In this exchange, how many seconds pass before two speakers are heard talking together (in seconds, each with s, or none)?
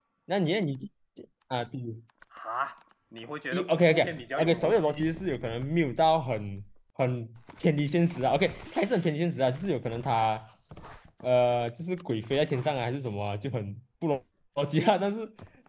3.5 s